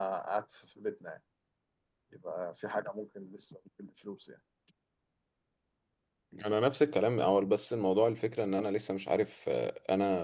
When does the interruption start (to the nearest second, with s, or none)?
none